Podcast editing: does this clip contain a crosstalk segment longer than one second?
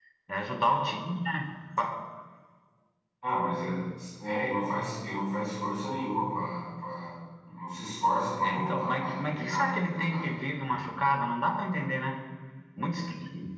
Yes, from 8.4 s

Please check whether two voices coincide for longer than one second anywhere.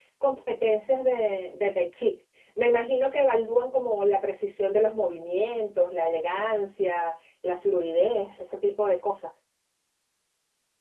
No

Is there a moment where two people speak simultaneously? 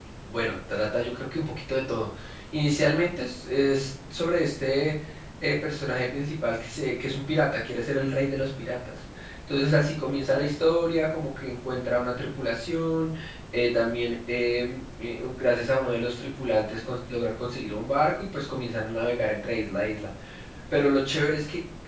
No

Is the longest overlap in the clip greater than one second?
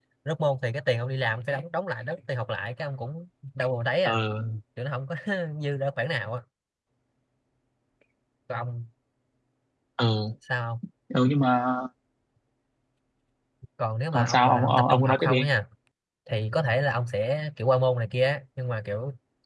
Yes, from 14.1 s

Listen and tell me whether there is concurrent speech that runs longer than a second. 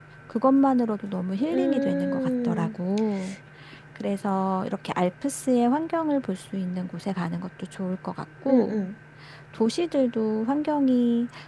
Yes, from 1.5 s

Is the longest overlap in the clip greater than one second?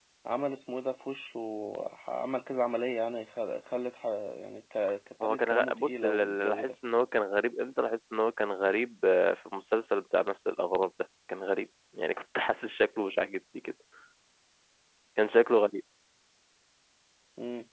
Yes, from 5.2 s

